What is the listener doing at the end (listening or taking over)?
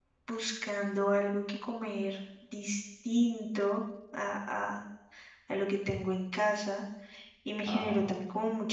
listening